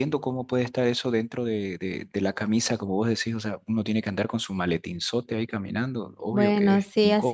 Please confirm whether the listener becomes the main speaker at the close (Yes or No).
Yes